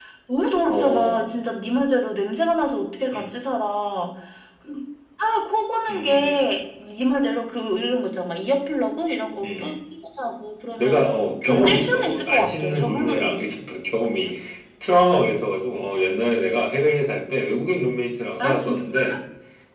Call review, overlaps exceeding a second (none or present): present